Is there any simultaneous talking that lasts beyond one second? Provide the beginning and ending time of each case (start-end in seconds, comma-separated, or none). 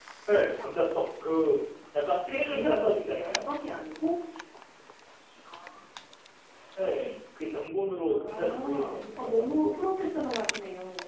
2.3-3.5, 8.1-9.8